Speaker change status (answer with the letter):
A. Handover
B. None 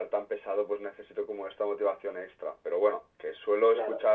B